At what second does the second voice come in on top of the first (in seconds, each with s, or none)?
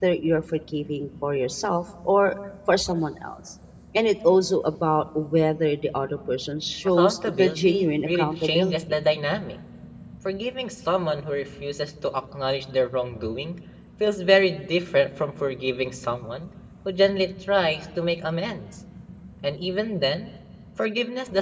7.0 s